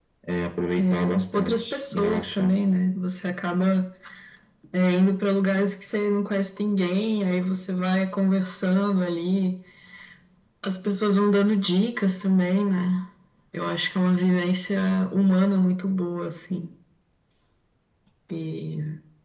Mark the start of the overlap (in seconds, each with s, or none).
0.8 s